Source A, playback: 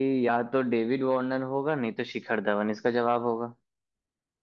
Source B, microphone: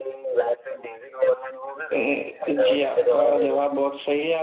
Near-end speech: present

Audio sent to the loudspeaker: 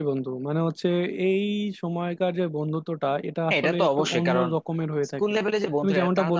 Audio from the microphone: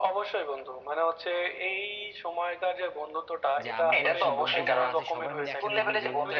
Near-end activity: present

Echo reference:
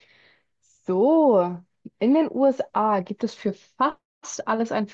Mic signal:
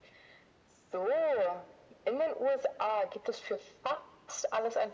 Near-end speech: none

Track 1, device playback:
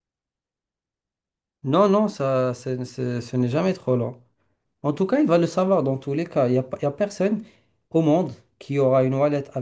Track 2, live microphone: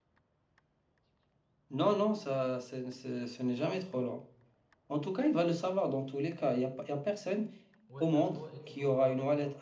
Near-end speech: present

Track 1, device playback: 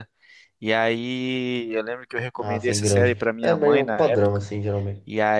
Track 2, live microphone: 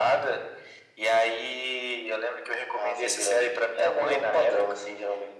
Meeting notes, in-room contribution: none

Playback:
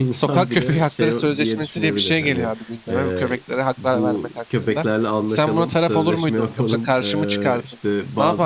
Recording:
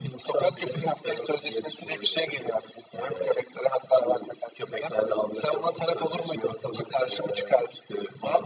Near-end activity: none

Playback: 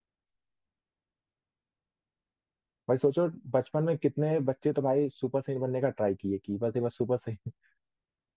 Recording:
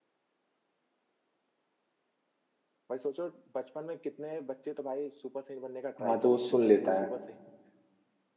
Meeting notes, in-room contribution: present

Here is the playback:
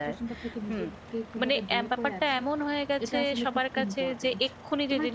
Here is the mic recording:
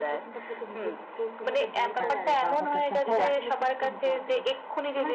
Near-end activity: present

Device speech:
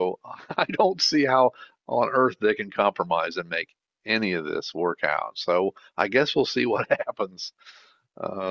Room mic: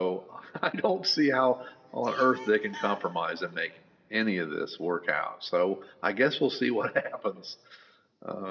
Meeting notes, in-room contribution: present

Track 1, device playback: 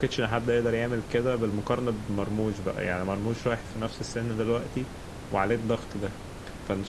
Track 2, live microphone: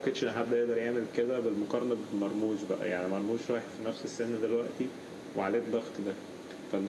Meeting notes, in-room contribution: none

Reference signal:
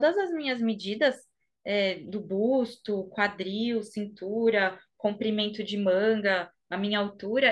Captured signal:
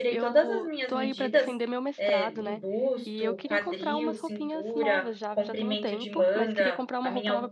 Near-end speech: present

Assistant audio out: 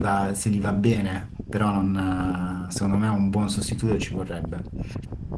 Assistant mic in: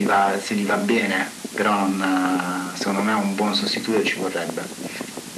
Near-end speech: none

